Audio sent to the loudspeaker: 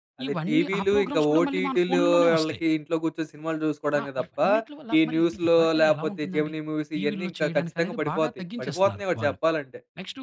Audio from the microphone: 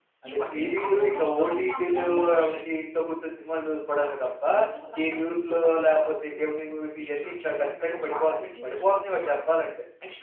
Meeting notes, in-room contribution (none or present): none